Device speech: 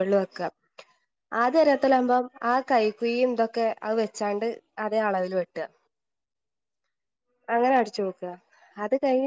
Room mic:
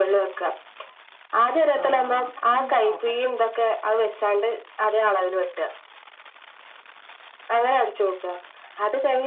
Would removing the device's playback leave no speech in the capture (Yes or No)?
No